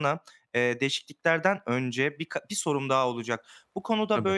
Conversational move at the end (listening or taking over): listening